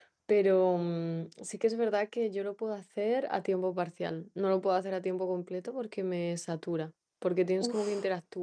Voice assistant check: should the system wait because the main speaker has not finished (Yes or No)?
Yes